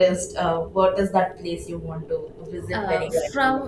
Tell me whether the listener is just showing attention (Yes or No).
No